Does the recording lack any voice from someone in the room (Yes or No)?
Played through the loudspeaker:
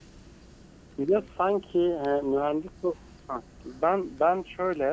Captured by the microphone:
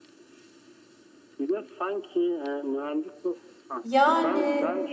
No